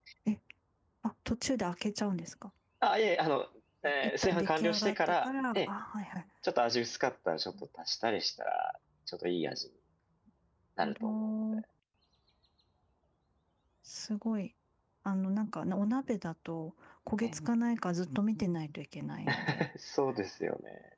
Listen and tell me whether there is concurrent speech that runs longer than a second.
Yes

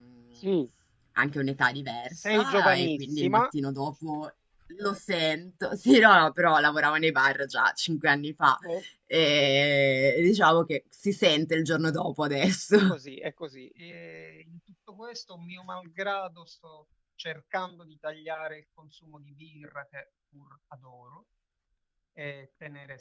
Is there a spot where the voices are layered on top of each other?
Yes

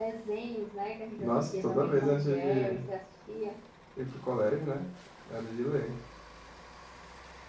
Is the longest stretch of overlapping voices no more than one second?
No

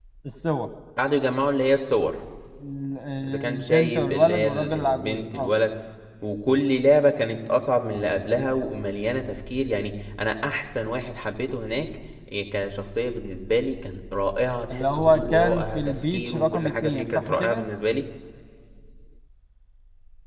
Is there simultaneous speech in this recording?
Yes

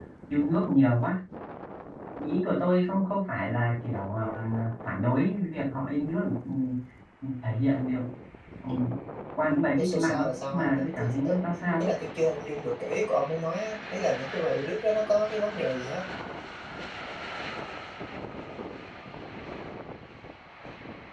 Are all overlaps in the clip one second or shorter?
No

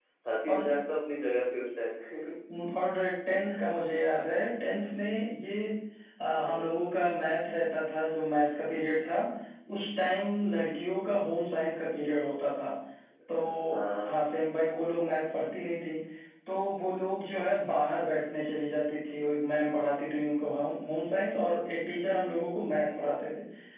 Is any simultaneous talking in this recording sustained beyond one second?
No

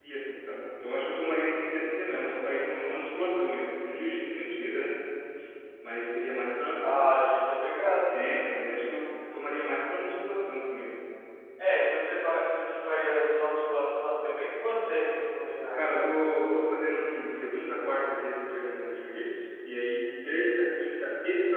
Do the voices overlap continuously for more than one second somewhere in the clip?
No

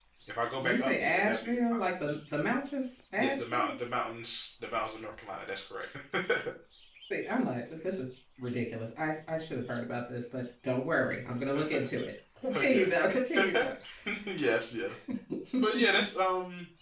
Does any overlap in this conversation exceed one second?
Yes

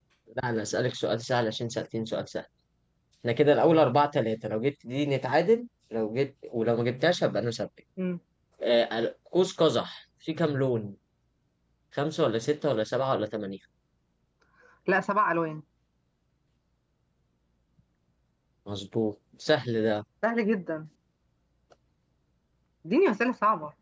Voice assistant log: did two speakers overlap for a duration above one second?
No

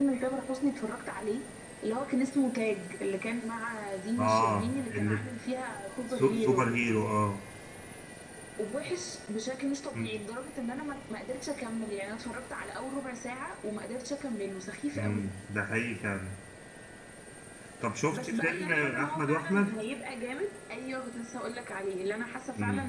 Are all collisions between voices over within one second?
No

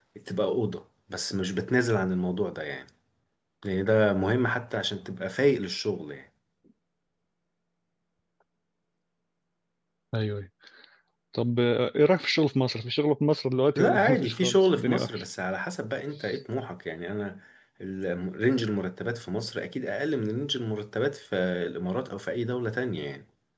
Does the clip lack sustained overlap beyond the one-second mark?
No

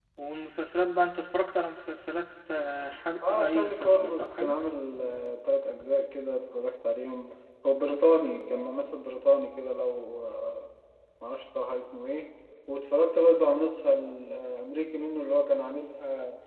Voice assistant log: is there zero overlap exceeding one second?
No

